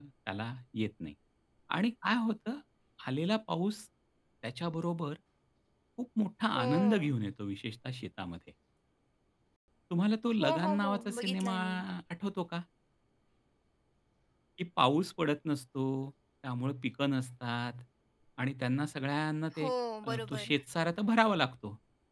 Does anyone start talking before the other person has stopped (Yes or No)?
Yes